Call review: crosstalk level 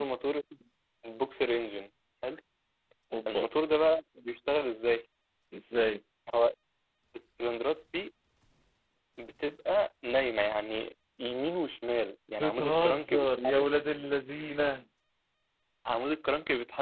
present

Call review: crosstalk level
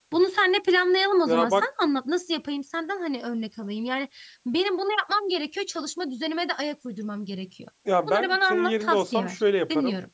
present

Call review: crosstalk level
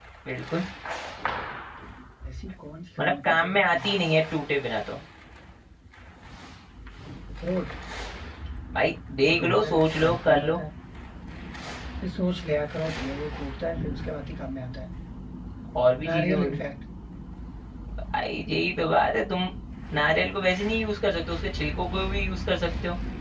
present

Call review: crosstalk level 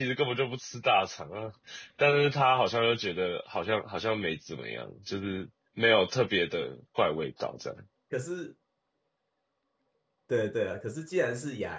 none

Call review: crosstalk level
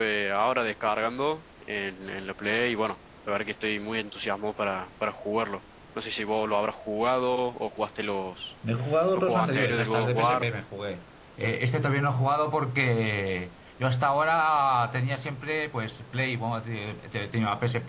present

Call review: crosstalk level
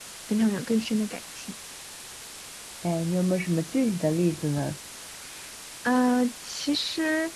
none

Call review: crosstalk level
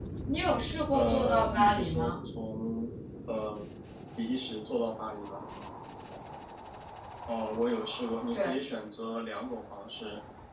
present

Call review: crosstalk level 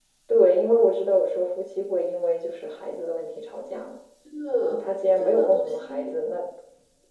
present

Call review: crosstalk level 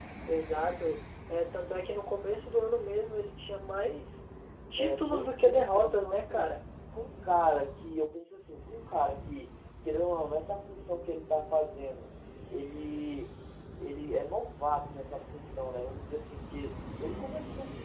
present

